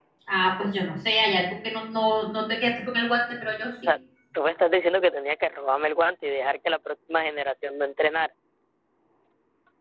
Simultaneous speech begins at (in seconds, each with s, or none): none